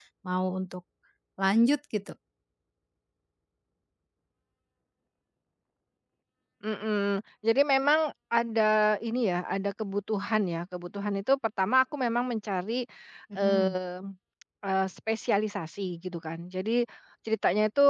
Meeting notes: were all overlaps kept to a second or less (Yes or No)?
Yes